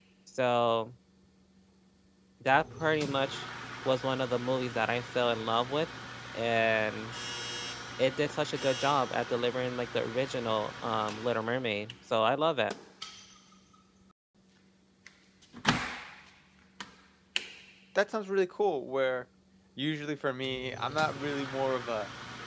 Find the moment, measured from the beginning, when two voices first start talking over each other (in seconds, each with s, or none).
none